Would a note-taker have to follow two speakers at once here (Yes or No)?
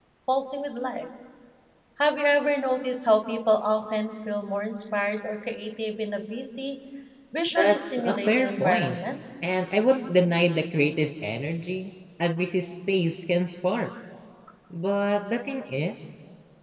Yes